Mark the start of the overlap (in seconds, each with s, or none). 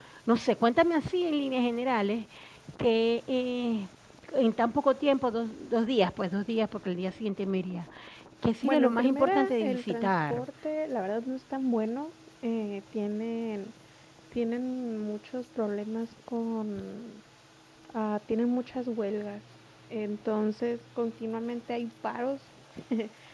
8.6 s